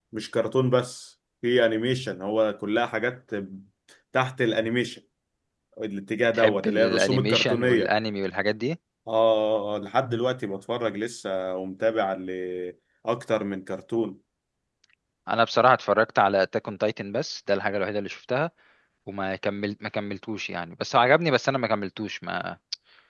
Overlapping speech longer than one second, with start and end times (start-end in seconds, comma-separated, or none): 6.3-7.9